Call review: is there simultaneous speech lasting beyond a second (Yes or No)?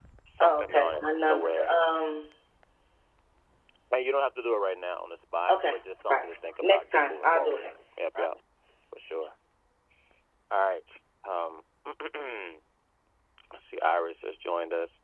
Yes